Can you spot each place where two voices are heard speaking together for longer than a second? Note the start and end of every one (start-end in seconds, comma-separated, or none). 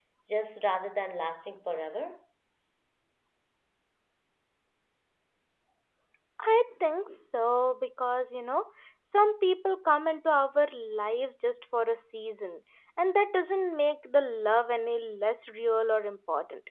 none